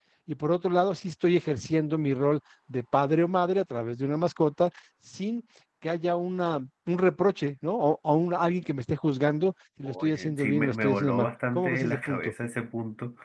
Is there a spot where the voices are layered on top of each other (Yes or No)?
Yes